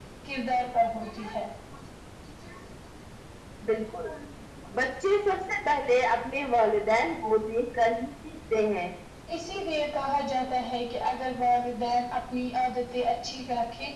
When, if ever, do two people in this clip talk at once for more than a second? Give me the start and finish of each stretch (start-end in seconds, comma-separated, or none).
none